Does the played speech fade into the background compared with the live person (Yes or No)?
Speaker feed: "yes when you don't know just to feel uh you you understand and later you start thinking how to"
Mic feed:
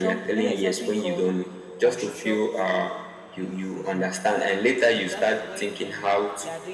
No